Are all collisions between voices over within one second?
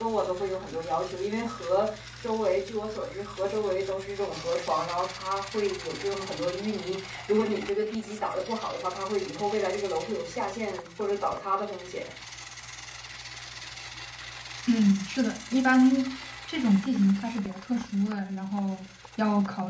Yes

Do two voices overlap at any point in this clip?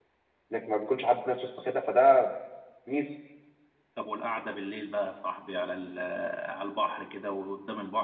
No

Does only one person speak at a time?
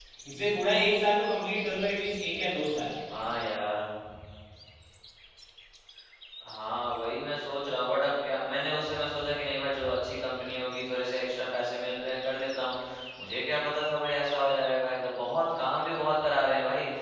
Yes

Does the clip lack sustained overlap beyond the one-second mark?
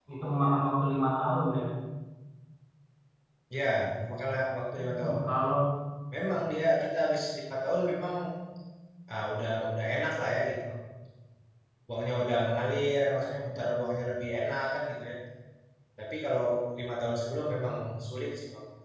Yes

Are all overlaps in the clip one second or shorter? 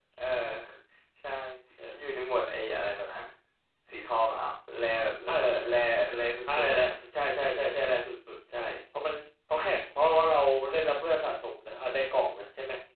Yes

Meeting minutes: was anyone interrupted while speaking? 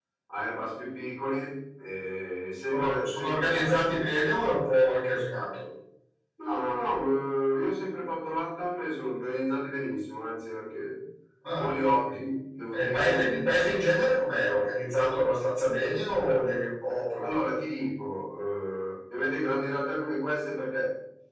Yes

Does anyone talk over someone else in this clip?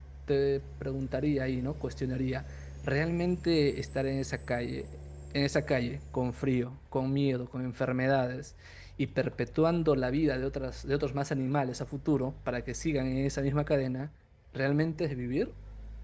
No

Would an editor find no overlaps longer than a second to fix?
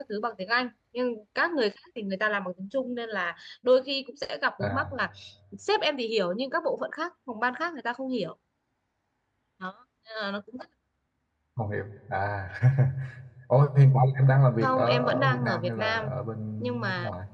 No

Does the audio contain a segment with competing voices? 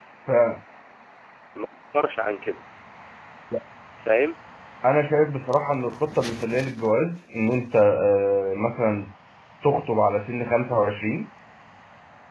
No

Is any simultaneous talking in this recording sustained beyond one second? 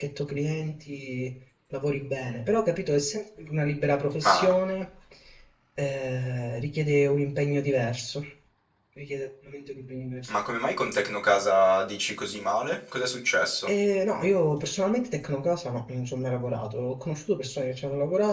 No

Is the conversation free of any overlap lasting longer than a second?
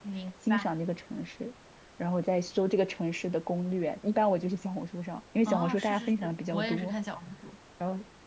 No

